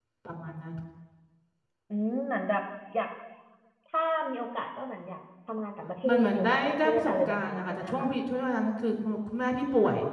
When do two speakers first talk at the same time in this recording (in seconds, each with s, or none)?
6.0 s